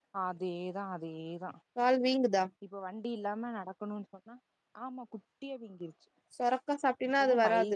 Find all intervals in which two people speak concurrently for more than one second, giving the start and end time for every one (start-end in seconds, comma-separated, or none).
none